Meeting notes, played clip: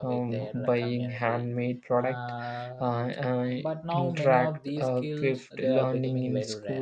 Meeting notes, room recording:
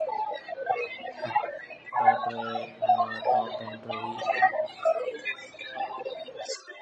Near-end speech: present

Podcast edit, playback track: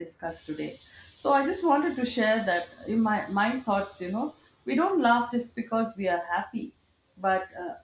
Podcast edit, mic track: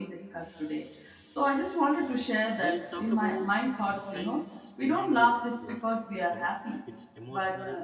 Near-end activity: present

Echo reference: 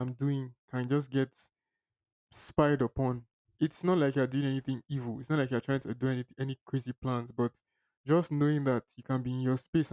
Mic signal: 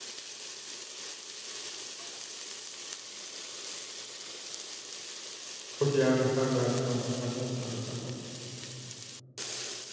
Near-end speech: present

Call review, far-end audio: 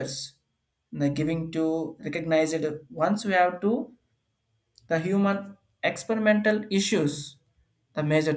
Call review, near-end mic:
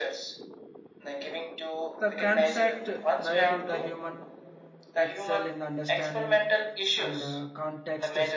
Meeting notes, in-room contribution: present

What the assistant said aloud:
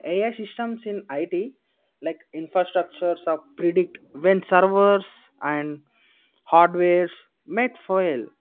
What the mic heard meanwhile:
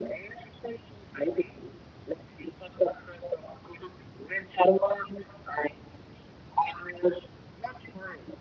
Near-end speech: none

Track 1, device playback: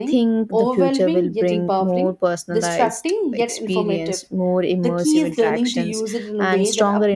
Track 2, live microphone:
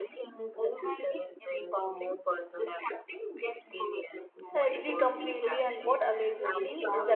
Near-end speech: present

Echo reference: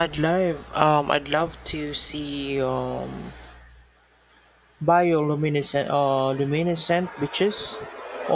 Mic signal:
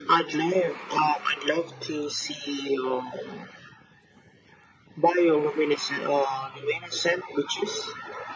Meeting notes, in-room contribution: none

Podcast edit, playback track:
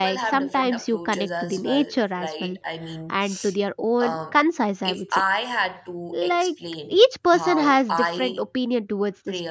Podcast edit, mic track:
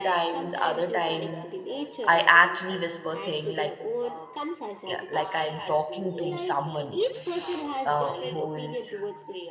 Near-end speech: present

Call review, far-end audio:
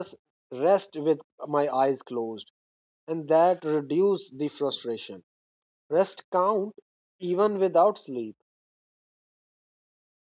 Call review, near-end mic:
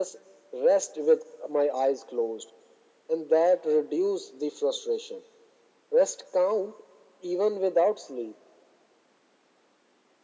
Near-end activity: none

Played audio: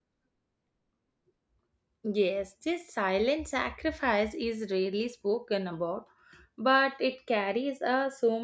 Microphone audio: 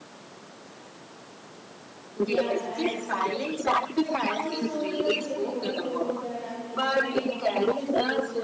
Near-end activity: present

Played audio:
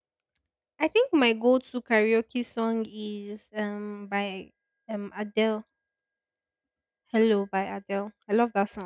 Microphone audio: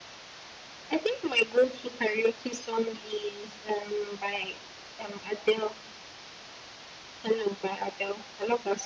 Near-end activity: none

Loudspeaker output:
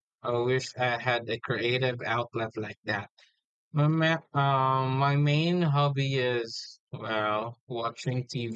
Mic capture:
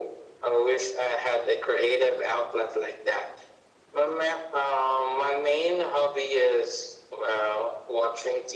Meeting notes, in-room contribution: none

